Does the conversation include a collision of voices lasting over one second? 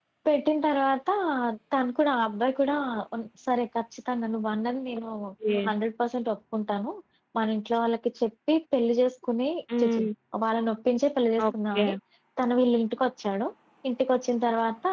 No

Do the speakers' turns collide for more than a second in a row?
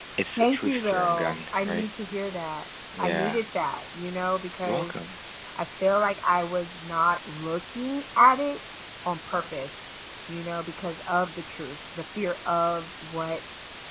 Yes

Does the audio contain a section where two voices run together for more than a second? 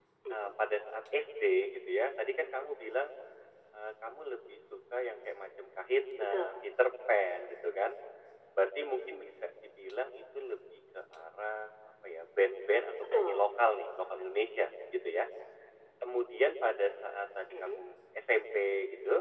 No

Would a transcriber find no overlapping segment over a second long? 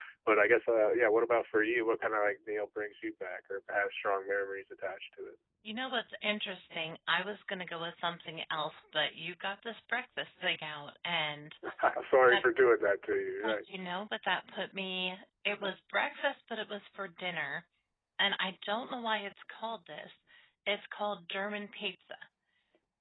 Yes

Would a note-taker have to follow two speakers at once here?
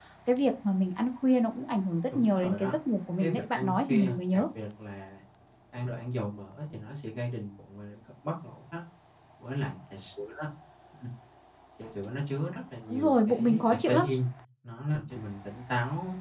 Yes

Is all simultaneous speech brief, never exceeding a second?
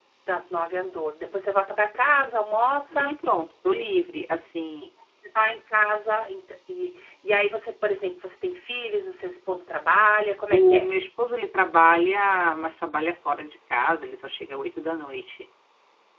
Yes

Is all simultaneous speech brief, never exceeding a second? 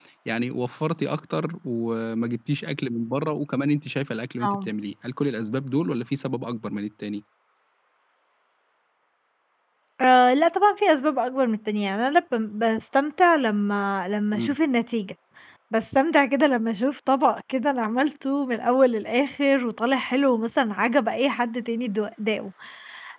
Yes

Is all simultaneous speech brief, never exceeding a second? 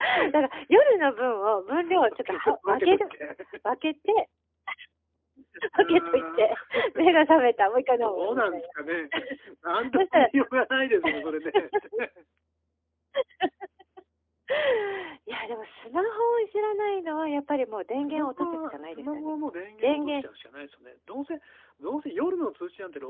No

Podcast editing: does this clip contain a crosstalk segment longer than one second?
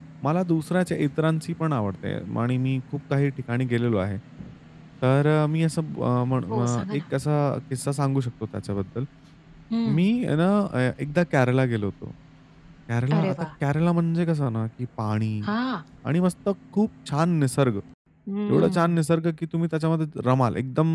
No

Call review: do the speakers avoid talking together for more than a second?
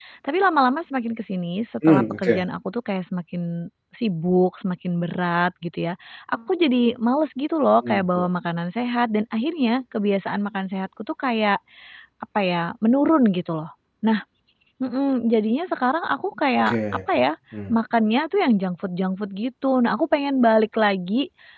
Yes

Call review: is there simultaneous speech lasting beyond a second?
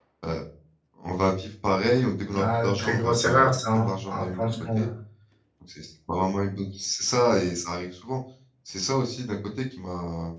Yes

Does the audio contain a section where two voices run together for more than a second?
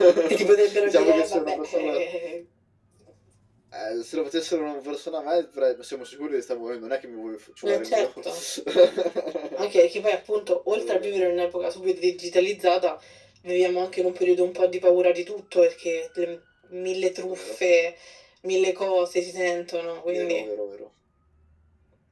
Yes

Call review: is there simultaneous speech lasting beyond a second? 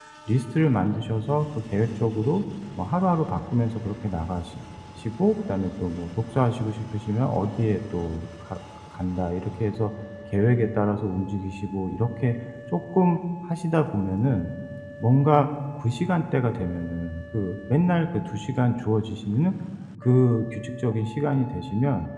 No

